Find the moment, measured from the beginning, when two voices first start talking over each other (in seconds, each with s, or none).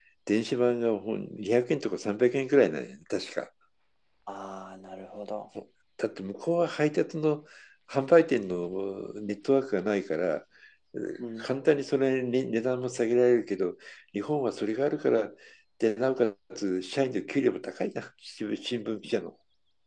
none